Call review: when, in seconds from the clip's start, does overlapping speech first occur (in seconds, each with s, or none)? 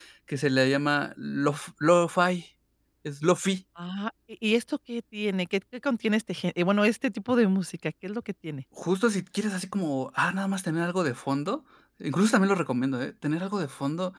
none